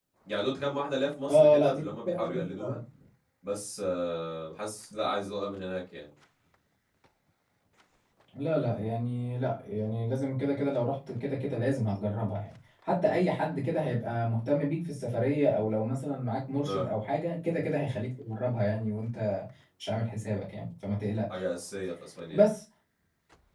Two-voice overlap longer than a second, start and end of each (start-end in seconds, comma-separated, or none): 1.3-2.8